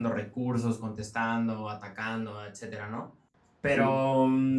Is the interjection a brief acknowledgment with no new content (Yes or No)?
Yes